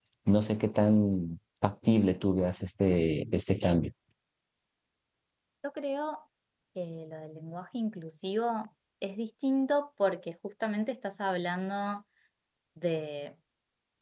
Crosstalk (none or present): none